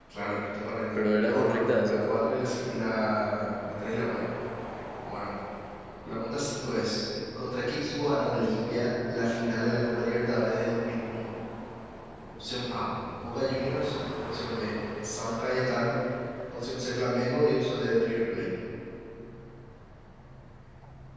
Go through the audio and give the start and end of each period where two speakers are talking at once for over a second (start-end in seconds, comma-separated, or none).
0.9-2.2